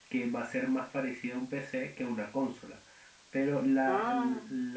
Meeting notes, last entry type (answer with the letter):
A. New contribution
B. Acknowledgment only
B